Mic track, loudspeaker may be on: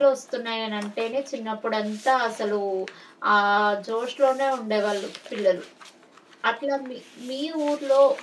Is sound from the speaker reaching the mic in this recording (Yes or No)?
No